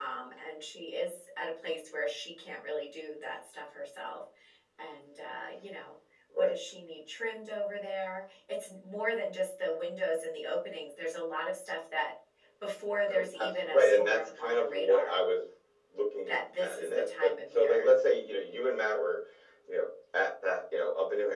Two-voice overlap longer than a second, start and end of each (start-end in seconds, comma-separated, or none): 13.1-15.1, 16.3-17.9